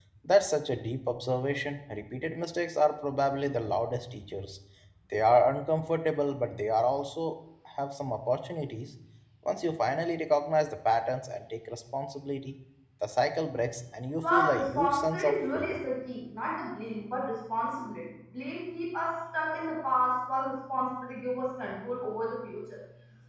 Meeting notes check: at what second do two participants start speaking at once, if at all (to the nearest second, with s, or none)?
14 s